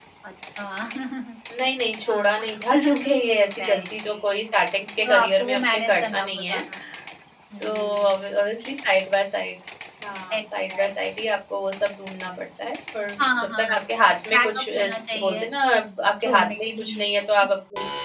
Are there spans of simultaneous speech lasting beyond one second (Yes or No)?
Yes